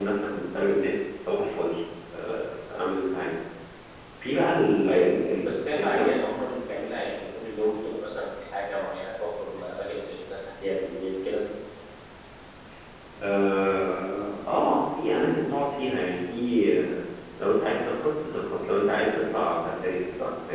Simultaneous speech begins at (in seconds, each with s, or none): 4.8 s